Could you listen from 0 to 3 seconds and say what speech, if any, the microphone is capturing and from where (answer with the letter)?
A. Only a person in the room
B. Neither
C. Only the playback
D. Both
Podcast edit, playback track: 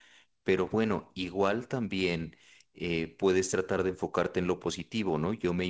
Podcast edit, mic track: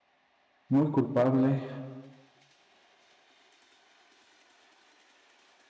A